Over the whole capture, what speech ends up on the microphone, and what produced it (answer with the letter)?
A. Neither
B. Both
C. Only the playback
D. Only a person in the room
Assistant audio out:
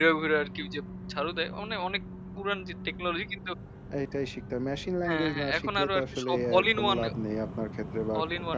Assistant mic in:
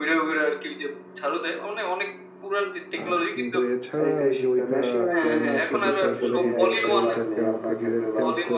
B